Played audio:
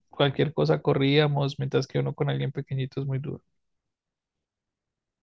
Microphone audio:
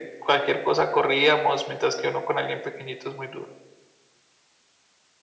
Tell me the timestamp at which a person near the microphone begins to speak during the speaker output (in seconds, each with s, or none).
none